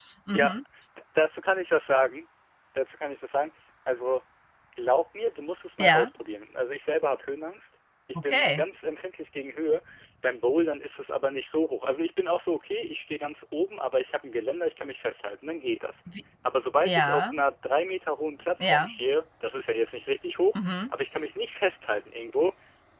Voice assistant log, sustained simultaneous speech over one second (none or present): none